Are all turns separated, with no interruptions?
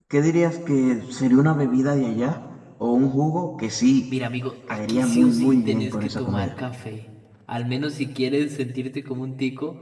No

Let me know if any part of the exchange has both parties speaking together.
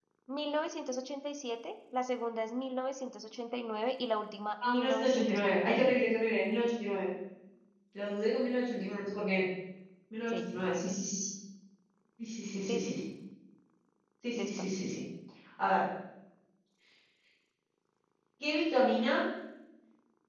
Yes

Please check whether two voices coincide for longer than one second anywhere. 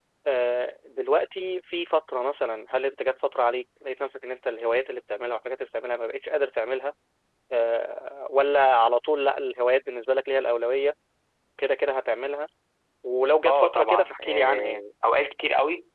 Yes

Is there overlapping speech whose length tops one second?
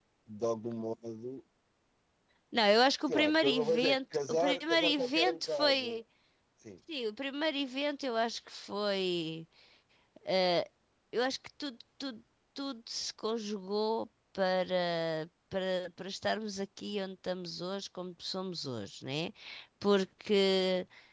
Yes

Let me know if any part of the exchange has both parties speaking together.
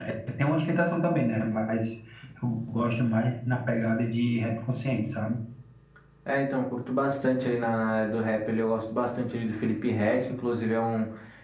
No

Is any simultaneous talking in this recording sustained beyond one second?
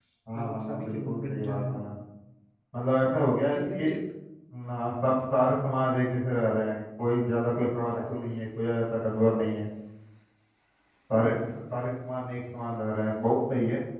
Yes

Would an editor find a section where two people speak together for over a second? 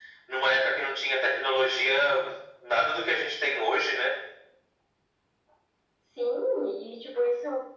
No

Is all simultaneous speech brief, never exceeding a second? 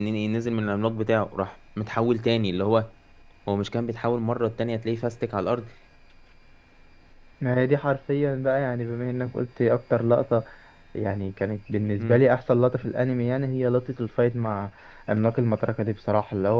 Yes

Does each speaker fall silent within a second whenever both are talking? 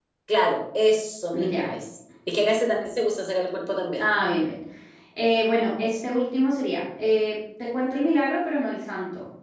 Yes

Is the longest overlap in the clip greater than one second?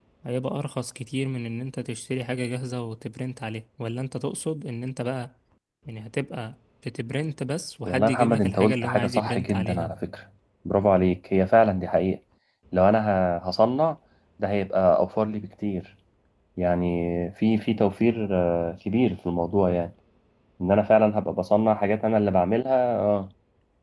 Yes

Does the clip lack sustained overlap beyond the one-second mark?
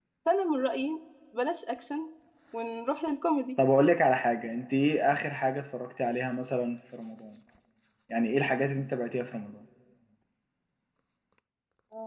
Yes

